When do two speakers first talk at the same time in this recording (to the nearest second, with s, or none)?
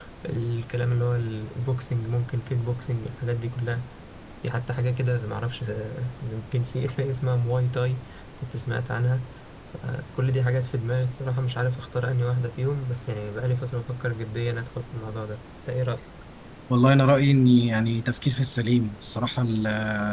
none